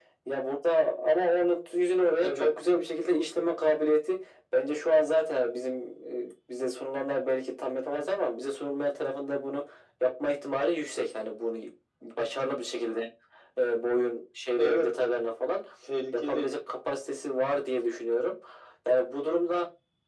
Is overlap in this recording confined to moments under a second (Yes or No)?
Yes